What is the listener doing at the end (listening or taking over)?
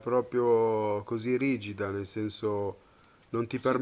taking over